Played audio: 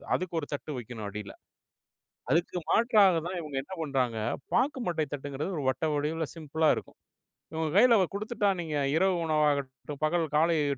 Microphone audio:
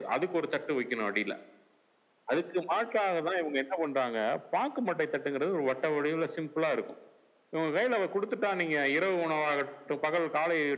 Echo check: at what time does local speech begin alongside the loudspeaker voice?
none

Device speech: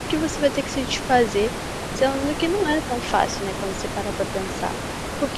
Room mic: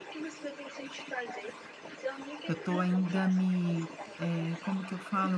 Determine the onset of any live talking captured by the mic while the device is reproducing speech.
2.5 s

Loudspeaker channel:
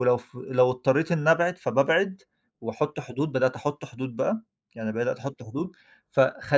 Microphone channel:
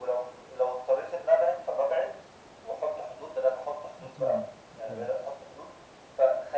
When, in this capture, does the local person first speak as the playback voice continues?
4.0 s

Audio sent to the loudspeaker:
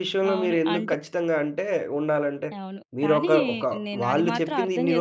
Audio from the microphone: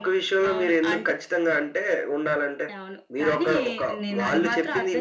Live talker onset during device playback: 4.0 s

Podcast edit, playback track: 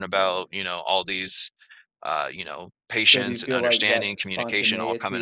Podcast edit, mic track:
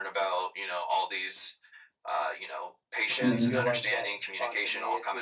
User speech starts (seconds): 3.2 s

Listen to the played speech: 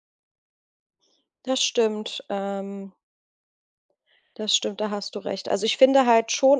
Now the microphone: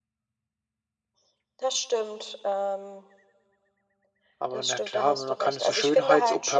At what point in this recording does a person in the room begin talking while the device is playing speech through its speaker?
4.4 s

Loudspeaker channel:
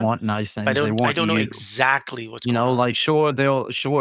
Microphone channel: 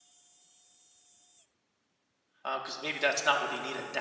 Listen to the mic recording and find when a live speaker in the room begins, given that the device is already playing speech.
2.4 s

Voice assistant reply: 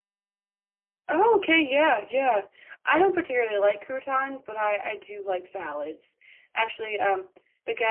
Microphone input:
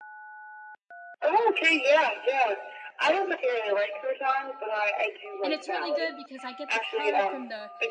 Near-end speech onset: 5.4 s

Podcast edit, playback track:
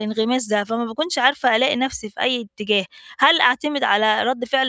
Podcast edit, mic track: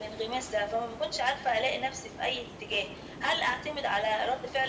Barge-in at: none

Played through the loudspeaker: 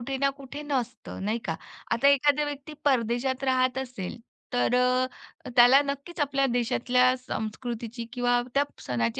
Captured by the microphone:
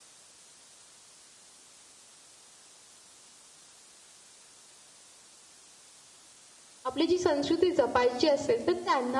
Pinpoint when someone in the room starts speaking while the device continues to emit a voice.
6.8 s

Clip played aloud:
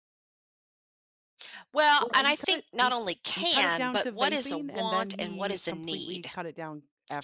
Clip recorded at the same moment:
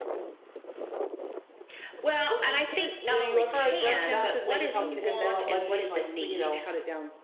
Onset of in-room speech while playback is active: 3.0 s

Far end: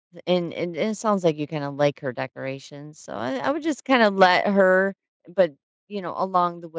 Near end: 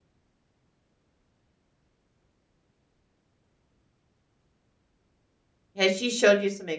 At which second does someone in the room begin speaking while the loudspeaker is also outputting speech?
5.8 s

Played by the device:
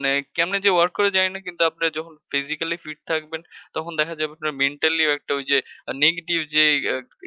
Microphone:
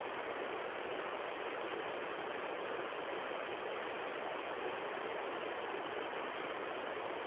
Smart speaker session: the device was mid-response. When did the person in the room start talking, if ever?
none

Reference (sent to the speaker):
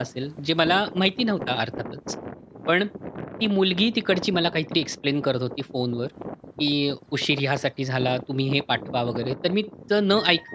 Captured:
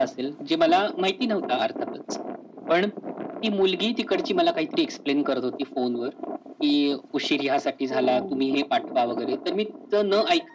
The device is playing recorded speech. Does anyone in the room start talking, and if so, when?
7.9 s

